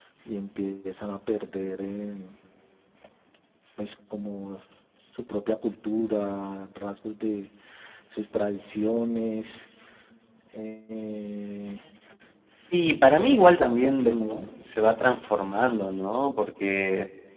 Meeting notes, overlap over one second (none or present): present